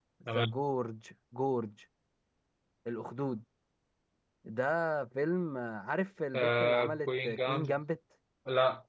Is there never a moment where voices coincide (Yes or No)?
No